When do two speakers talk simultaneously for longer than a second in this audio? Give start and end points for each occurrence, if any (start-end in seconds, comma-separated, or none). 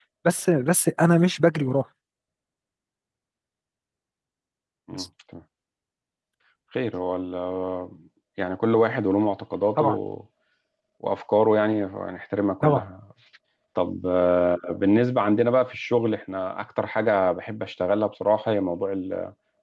none